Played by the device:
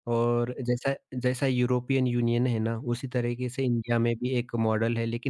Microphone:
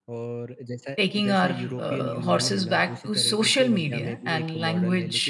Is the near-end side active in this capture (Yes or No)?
Yes